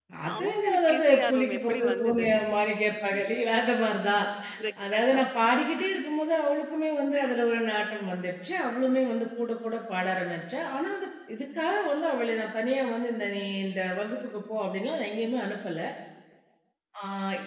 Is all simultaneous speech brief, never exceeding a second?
No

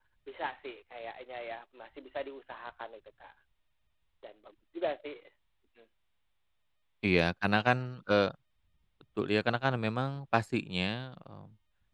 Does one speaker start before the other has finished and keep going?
No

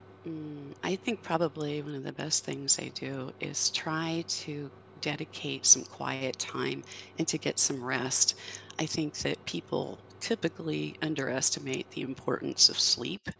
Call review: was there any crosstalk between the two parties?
No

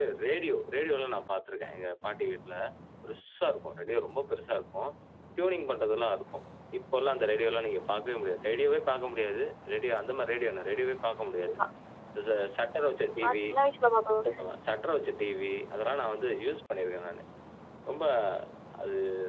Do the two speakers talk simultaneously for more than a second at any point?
No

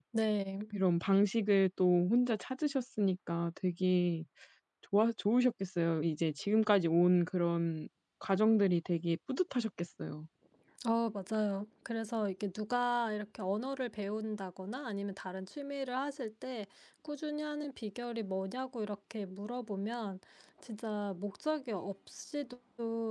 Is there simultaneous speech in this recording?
No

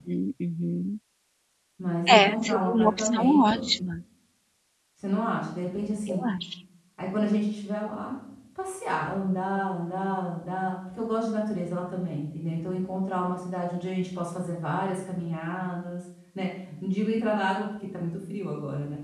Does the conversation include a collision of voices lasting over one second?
Yes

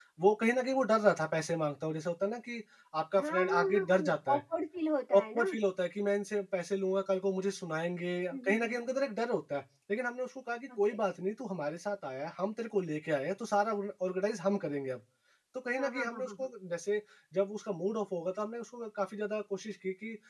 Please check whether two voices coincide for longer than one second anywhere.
Yes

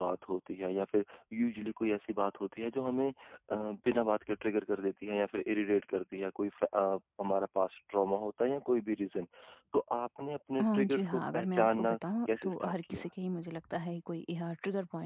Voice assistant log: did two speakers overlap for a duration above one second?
Yes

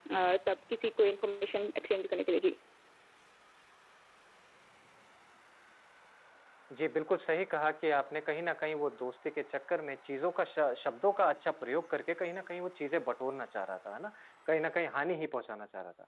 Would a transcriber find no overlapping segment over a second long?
Yes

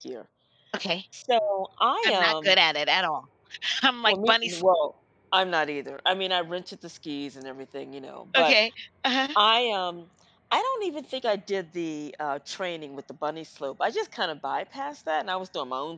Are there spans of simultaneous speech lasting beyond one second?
No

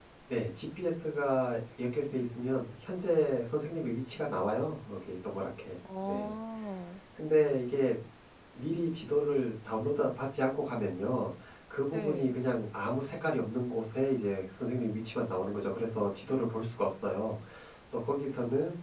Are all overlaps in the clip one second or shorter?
Yes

